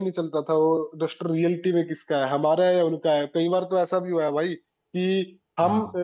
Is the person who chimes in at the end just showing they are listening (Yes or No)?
Yes